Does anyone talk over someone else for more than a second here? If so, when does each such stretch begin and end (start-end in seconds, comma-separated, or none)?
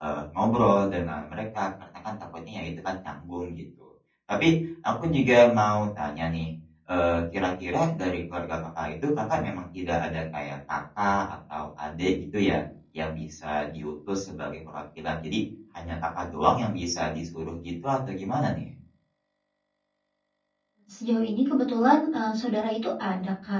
none